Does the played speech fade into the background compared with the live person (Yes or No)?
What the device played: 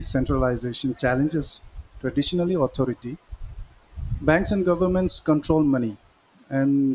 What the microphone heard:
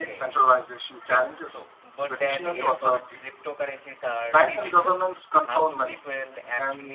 No